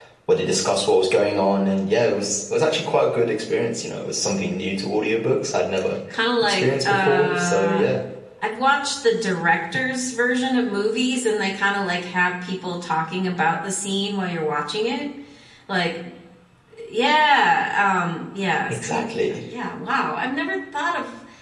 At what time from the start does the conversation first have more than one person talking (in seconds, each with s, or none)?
6.4 s